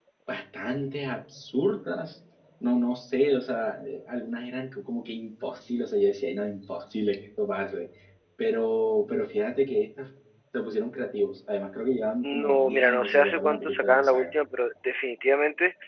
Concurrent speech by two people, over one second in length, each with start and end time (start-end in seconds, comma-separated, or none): 12.2-14.3